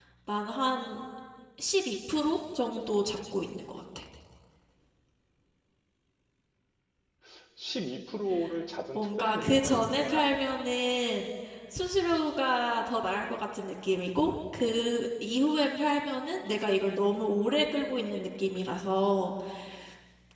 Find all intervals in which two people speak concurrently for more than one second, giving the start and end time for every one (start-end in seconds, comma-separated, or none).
8.9-10.2